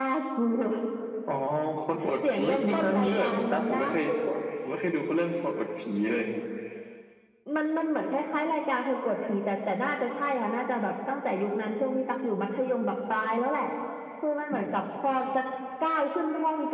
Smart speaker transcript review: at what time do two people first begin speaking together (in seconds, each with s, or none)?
2.3 s